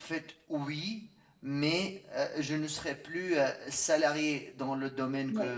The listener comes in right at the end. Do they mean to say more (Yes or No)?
No